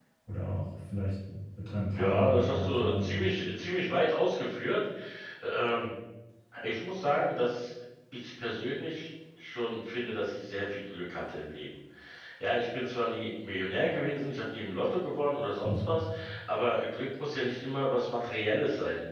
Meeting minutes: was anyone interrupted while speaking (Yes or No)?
Yes